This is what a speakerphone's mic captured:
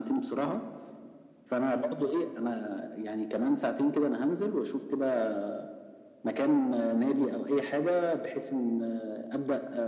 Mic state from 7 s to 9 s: echo only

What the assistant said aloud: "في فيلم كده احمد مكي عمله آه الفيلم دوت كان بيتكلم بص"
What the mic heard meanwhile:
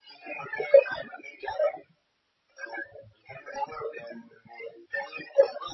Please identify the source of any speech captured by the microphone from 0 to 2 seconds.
echo only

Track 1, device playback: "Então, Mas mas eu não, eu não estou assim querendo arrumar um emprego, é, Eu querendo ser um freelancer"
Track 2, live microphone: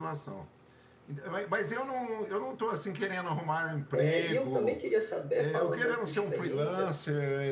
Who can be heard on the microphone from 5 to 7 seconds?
both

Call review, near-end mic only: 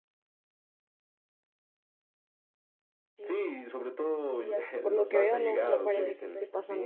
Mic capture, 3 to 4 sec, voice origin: echo only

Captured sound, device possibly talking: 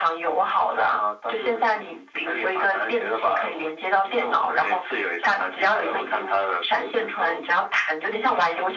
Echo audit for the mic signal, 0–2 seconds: echo only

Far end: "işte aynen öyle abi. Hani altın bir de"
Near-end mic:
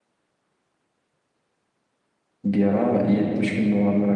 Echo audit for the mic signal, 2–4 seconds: user only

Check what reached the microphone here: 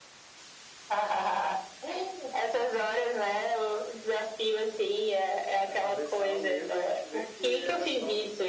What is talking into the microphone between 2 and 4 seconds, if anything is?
echo only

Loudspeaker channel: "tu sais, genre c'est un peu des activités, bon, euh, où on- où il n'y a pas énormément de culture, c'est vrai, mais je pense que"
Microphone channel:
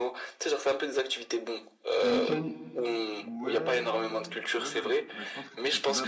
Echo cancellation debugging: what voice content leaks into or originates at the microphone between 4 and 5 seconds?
both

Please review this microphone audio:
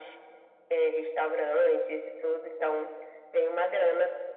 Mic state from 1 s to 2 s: echo only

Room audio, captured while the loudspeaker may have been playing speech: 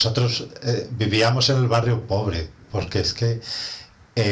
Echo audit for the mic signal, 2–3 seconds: user only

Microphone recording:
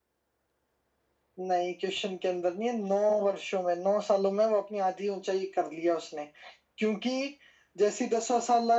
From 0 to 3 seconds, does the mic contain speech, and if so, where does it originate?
echo only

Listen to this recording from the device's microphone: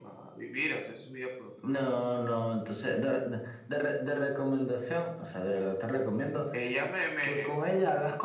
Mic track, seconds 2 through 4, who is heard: echo only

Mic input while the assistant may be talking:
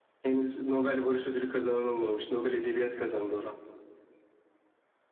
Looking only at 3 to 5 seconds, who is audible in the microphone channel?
echo only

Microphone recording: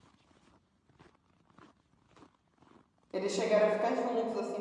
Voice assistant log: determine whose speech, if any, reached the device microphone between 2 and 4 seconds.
user only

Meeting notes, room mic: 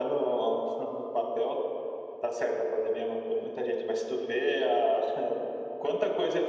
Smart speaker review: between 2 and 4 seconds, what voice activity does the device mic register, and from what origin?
echo only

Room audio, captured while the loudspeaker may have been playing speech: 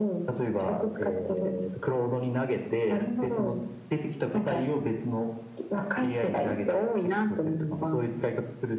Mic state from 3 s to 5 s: echo only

